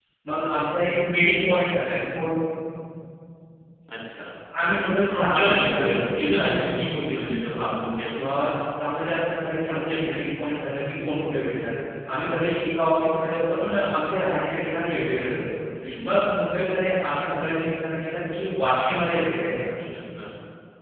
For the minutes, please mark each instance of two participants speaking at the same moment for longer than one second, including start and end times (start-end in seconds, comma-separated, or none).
5.1-7.1